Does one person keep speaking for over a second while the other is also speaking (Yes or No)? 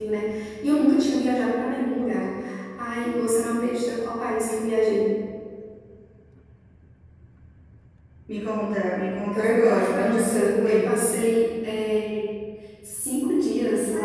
Yes